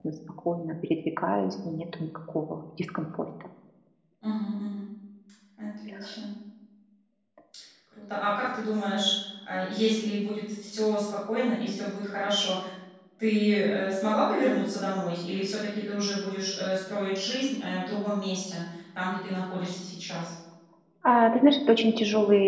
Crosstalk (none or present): none